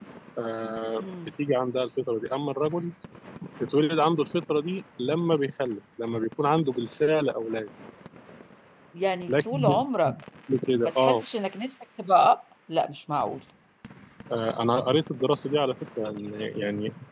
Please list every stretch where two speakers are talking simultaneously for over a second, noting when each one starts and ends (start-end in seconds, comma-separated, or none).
none